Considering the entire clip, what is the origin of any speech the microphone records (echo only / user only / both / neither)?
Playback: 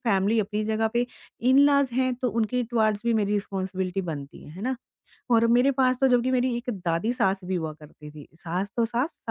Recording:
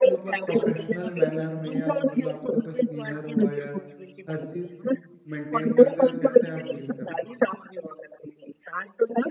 both